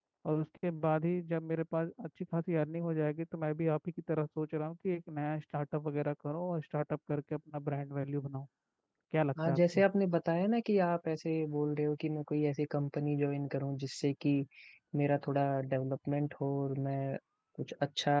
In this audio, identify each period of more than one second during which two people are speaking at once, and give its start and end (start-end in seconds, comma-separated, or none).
none